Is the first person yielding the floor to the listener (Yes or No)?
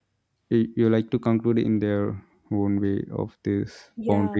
Yes